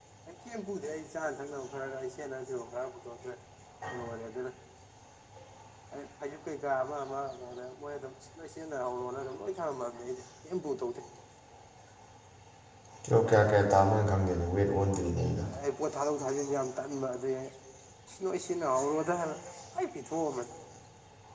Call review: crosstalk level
none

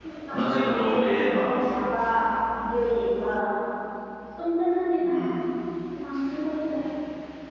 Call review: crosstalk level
present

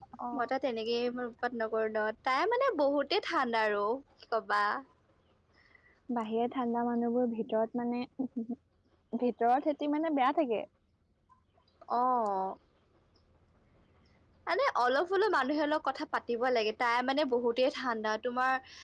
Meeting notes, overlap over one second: none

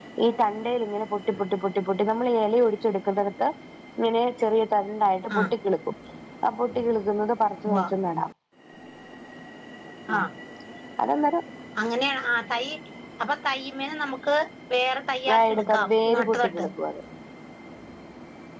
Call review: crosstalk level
present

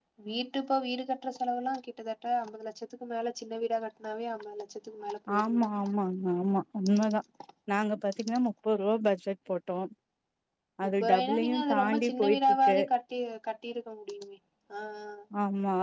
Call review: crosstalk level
present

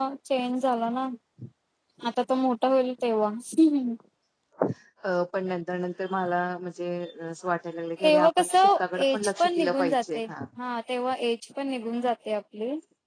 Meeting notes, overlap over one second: present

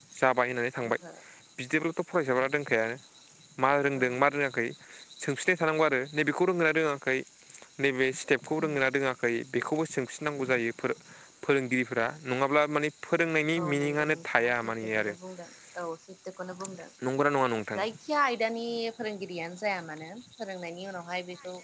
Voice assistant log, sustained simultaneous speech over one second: present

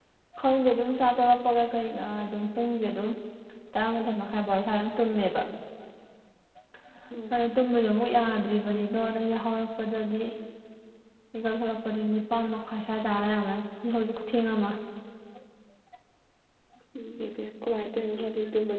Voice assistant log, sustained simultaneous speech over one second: none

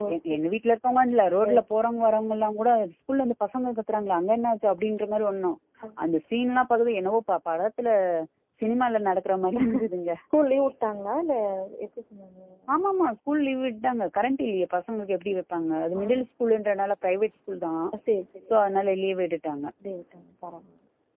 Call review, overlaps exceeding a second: none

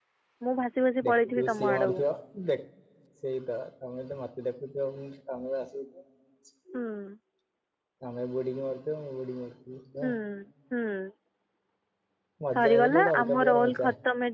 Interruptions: present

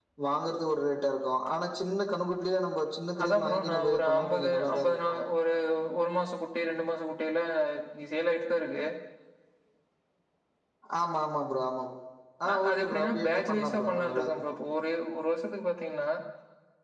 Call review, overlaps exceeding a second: present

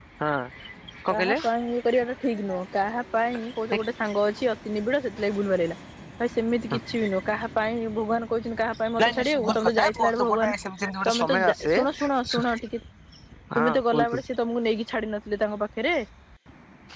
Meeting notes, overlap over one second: present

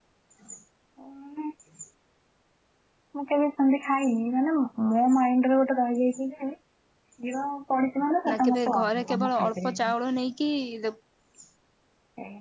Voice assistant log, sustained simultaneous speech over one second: present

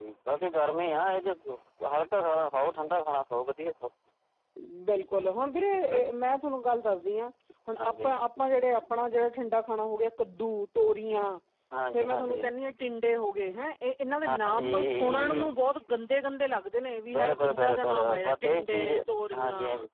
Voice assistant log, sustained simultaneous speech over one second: present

